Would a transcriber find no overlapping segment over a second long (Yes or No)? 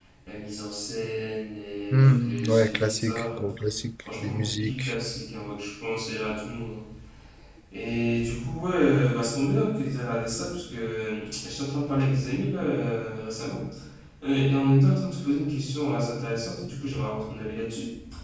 No